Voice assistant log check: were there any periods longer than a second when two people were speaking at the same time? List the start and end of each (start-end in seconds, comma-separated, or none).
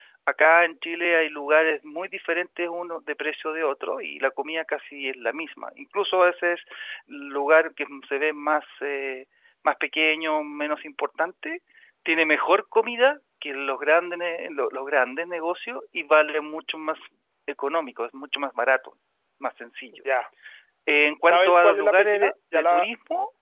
21.2-22.9